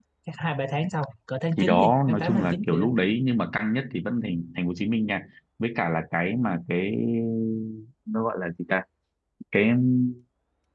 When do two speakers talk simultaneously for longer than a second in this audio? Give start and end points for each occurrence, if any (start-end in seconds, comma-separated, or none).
1.6-2.9